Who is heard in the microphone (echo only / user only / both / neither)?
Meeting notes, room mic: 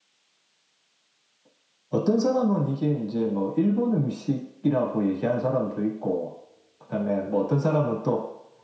echo only